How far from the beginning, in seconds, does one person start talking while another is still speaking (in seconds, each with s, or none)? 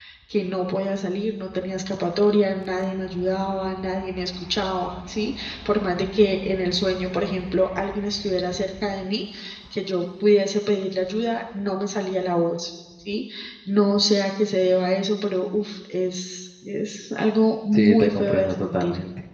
17.7 s